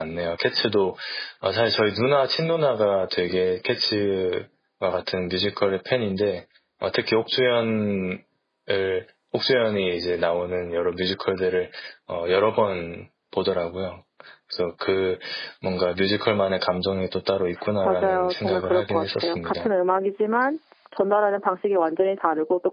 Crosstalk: present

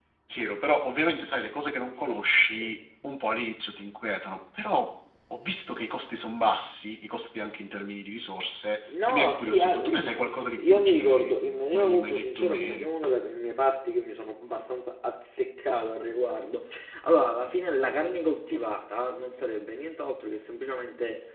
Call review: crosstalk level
present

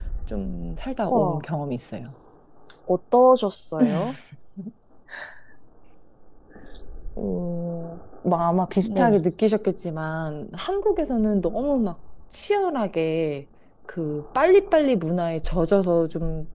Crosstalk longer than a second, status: none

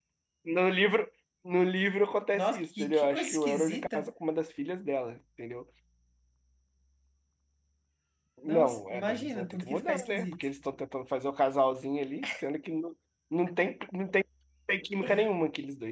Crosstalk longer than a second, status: present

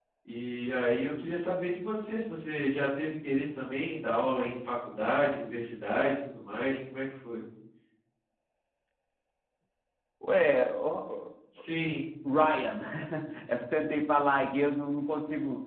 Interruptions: none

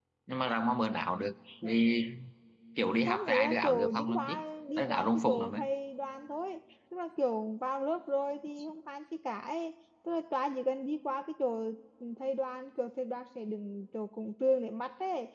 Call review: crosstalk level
present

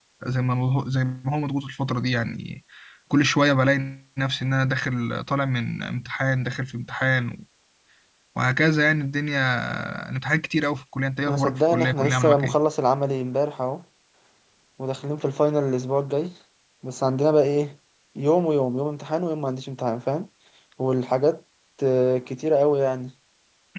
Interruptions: present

